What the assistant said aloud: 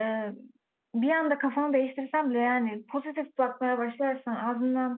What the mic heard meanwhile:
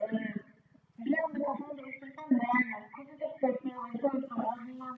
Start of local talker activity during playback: none

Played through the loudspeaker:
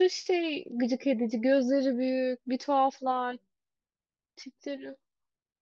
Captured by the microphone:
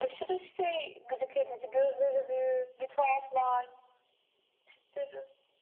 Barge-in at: none

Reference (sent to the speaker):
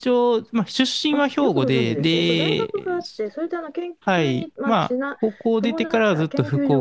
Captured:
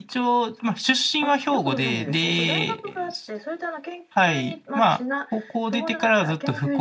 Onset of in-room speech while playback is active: none

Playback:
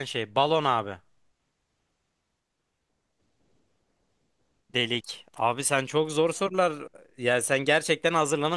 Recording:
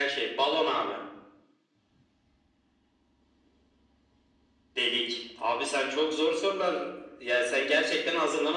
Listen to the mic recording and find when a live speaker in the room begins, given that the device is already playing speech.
none

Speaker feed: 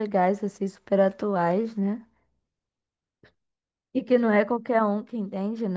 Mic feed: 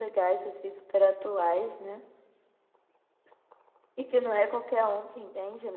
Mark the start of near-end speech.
none

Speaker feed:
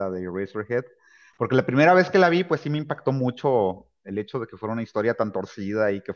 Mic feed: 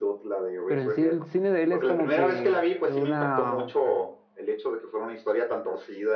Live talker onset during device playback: 0.7 s

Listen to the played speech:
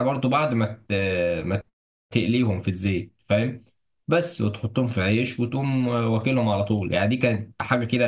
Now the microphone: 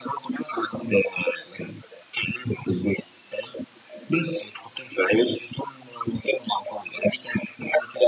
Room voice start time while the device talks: none

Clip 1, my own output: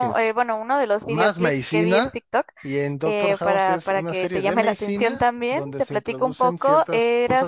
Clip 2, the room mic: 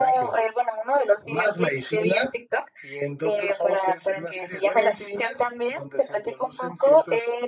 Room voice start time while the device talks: none

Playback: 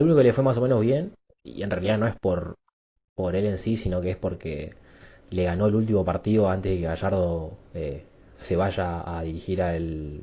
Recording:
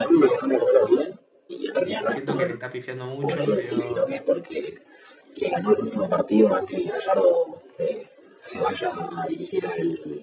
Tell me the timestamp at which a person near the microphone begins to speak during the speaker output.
1.8 s

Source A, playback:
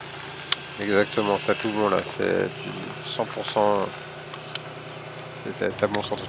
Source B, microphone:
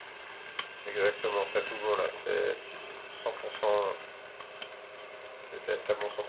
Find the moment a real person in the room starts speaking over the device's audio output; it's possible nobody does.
none

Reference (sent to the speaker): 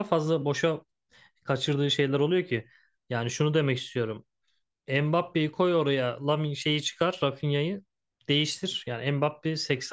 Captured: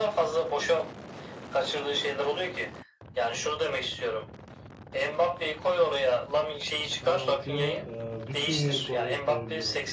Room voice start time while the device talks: 7.0 s

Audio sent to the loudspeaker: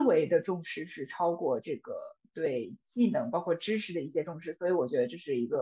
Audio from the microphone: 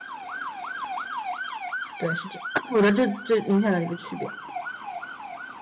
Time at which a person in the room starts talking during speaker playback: 2.0 s

